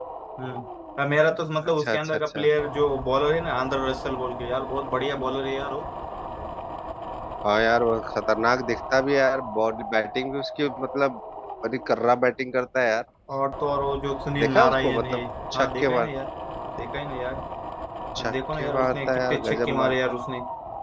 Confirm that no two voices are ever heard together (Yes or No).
No